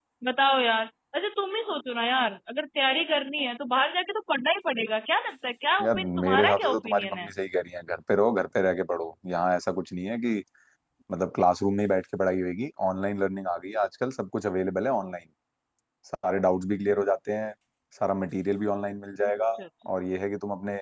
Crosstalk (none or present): present